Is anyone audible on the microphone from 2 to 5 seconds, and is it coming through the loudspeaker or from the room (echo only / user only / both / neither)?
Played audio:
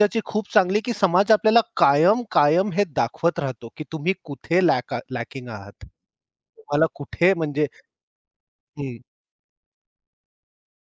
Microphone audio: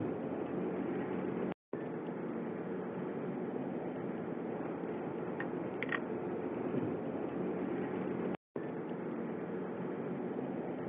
neither